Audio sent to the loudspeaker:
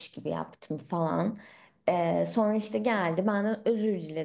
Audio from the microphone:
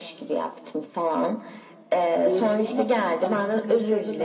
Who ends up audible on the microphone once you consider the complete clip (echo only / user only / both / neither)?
both